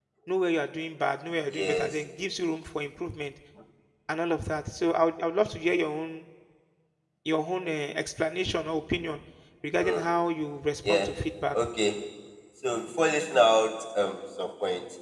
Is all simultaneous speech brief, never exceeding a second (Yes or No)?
Yes